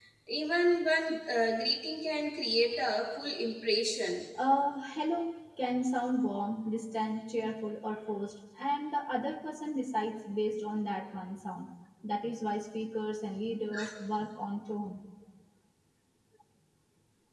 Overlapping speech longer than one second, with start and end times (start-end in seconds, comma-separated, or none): none